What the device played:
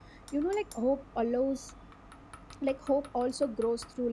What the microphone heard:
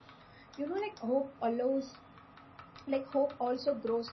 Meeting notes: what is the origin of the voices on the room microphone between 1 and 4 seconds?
echo only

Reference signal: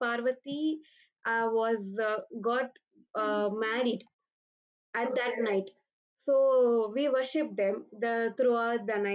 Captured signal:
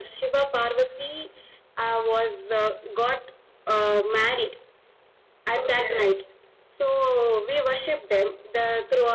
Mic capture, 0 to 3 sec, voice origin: echo only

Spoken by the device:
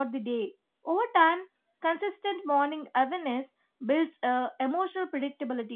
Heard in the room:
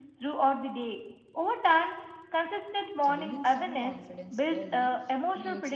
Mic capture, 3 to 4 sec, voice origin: both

